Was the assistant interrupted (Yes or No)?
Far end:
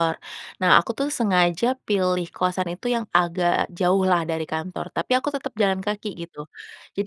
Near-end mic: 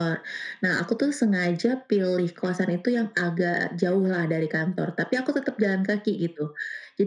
No